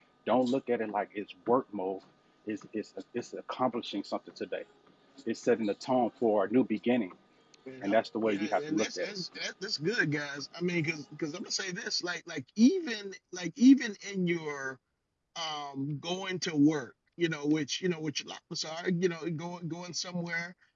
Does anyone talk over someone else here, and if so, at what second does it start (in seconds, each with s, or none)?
7.8 s